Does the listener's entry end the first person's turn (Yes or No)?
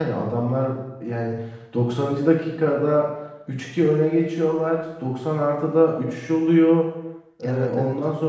No